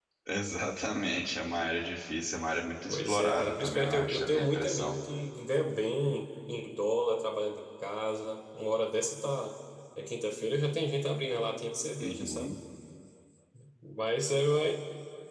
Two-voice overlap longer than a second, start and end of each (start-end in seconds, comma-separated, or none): 2.9-5.0